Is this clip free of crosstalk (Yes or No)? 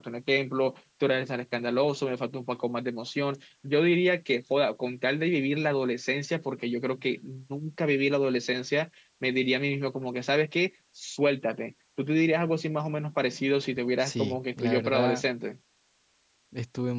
No